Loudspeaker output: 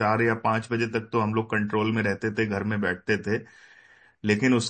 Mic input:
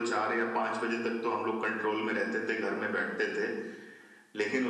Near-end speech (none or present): none